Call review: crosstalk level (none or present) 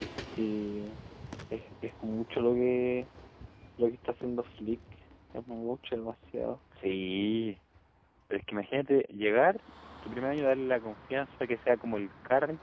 none